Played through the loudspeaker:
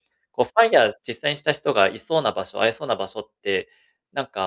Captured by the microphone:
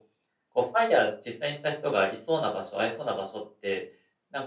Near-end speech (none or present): none